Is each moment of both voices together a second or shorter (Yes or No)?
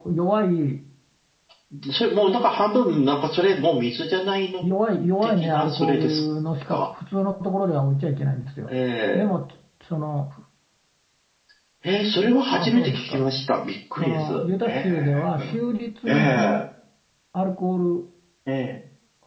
No